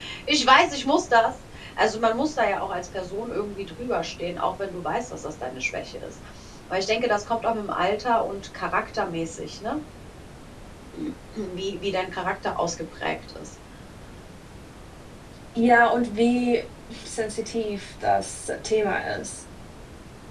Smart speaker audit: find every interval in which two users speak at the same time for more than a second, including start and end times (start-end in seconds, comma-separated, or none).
none